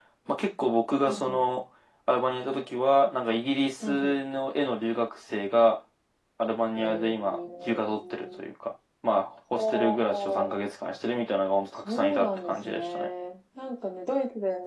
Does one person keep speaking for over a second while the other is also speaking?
Yes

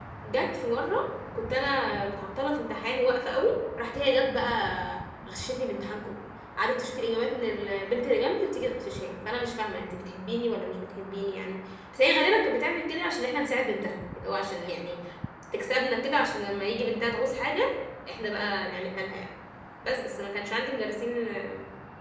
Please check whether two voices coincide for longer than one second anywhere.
No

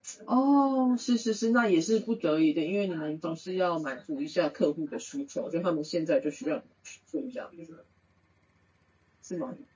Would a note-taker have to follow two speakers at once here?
No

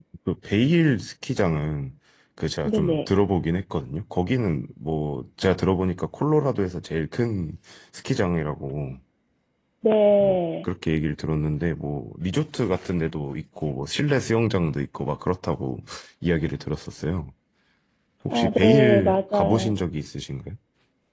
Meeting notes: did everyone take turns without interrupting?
No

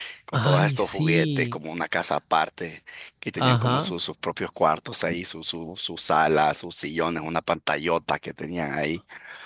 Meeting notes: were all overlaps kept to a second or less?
No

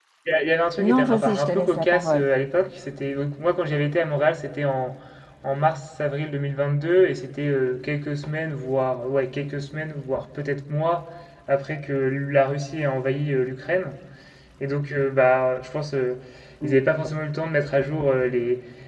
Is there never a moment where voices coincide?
No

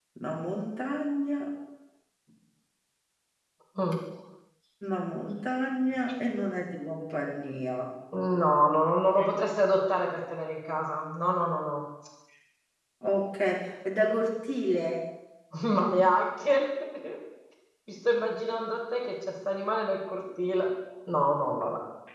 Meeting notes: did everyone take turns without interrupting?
Yes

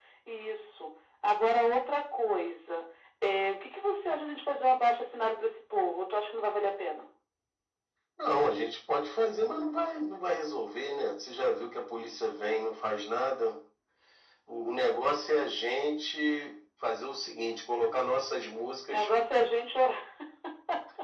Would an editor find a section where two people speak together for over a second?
No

